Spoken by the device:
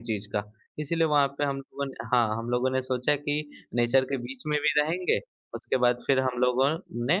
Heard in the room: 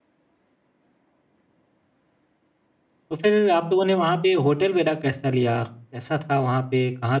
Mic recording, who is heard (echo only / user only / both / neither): user only